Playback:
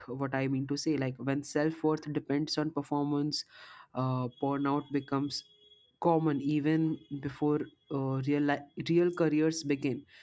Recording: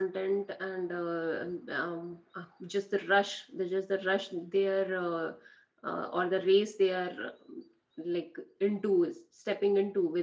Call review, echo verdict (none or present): none